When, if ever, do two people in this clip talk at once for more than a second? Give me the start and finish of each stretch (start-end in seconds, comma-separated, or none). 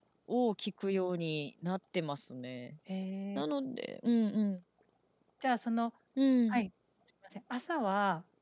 none